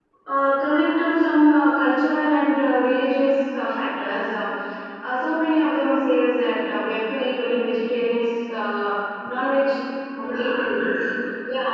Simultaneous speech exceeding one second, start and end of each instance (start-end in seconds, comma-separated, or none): none